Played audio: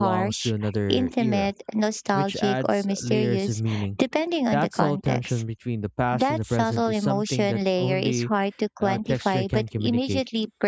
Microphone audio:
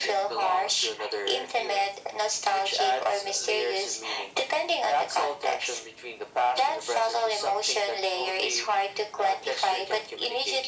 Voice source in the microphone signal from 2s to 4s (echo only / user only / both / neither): echo only